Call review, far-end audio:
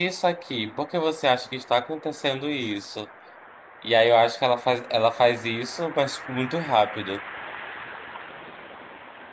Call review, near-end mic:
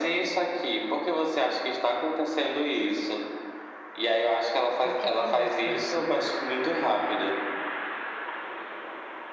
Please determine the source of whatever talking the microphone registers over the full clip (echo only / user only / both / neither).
both